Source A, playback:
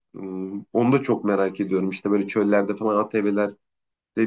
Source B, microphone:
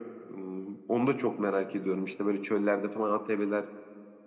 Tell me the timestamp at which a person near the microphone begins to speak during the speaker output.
none

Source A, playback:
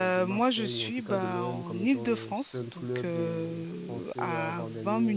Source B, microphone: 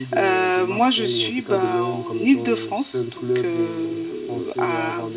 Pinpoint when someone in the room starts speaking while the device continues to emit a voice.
none

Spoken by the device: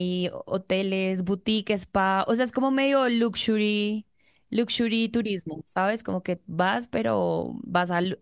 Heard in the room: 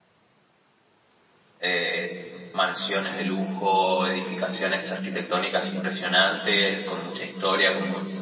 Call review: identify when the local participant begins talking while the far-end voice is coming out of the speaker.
1.6 s

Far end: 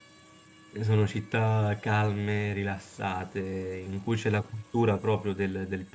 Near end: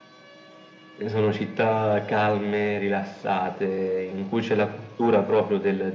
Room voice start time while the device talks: none

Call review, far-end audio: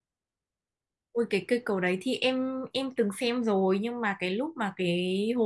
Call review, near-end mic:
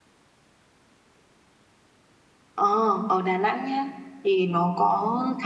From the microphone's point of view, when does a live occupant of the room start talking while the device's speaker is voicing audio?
2.5 s

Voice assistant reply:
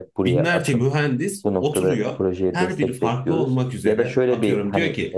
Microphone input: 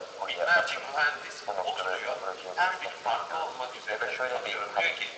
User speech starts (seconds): none

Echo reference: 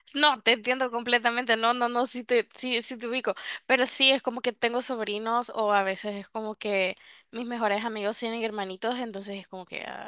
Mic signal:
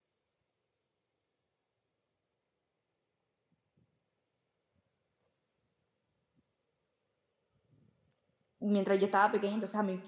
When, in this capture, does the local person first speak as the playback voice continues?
8.6 s

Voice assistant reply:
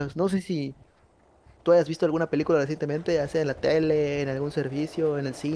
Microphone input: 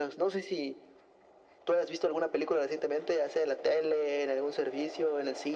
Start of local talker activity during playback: none

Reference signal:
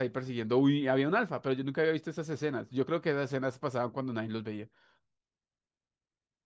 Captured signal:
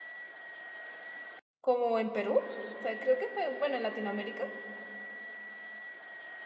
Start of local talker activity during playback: 1.6 s

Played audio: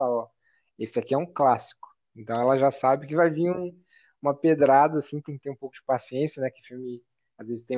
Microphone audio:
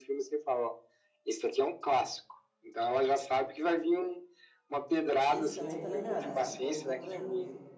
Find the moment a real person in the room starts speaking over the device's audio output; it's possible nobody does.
5.2 s

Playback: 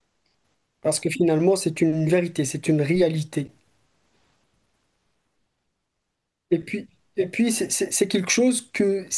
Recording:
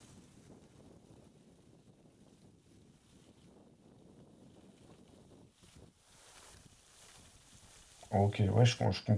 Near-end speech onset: 8.1 s

